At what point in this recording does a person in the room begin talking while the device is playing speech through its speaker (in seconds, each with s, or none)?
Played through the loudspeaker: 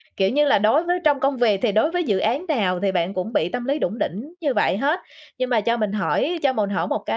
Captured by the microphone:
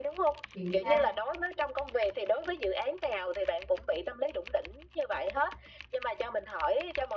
0.5 s